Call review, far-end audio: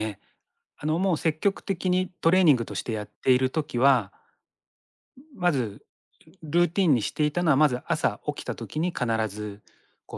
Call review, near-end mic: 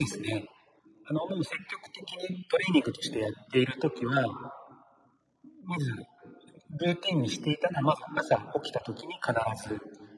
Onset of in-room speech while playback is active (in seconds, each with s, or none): none